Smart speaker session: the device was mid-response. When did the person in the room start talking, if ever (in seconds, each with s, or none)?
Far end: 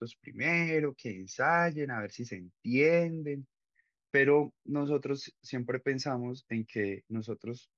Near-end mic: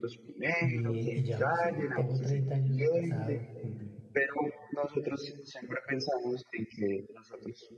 0.6 s